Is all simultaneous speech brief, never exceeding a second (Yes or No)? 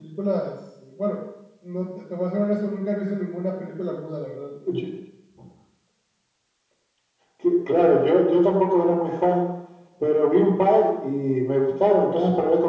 Yes